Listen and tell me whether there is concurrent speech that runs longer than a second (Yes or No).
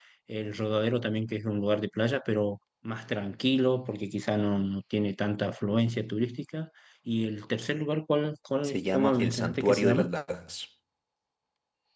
Yes